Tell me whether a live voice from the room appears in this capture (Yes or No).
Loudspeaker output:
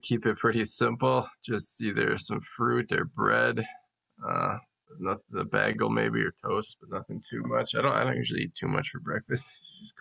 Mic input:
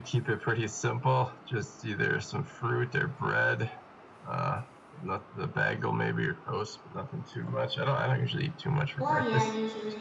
Yes